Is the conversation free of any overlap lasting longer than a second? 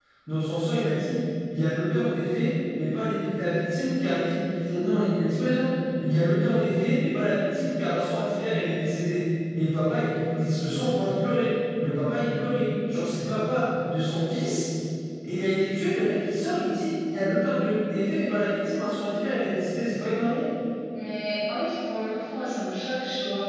Yes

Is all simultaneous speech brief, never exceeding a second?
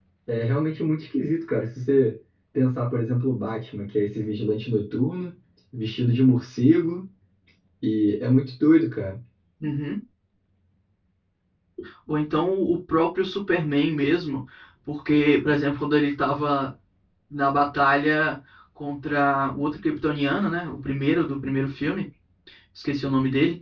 Yes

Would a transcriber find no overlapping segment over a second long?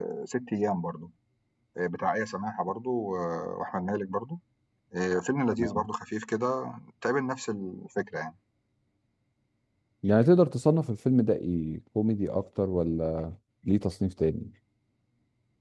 Yes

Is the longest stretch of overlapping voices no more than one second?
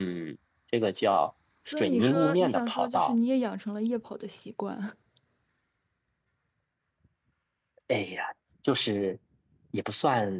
No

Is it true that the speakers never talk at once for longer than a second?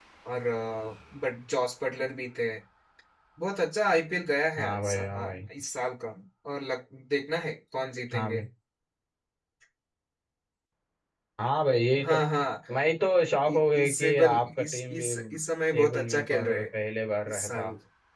No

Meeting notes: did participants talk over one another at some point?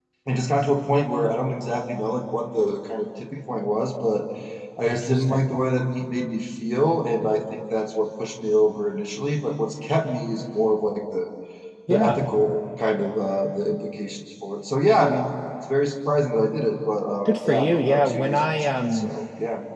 Yes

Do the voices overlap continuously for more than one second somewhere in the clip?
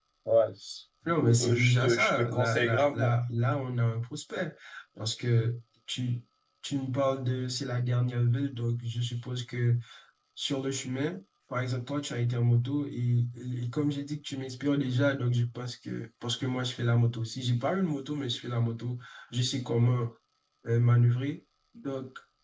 Yes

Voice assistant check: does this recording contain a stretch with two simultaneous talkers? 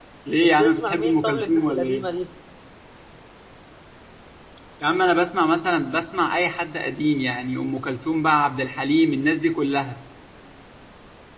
Yes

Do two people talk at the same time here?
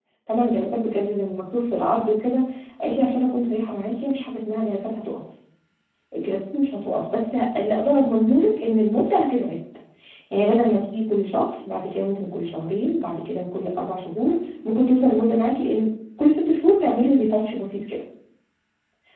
No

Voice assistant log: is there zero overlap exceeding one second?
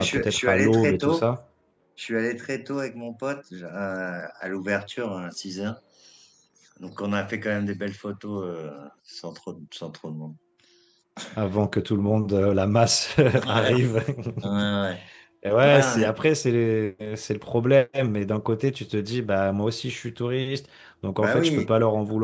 No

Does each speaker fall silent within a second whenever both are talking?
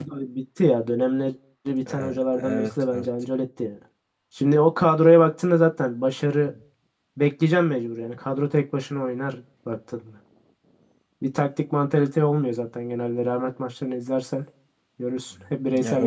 No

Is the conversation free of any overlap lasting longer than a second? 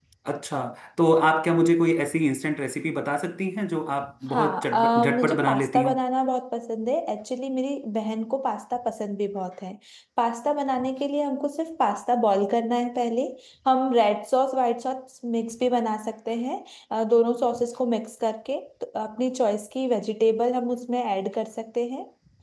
No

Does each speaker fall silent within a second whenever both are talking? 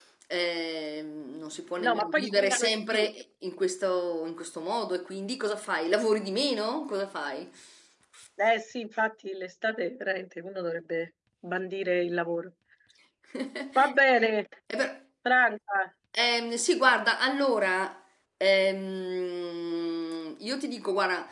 No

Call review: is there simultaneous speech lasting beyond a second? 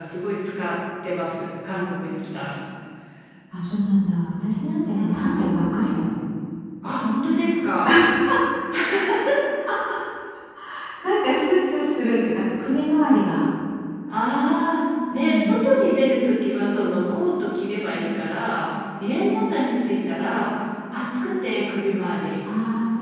No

